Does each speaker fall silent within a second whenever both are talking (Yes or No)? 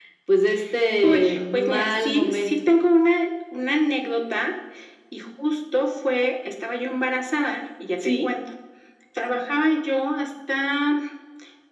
No